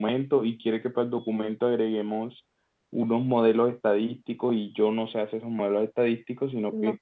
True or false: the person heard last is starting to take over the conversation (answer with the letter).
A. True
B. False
B